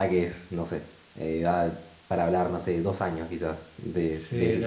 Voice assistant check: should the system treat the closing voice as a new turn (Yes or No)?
Yes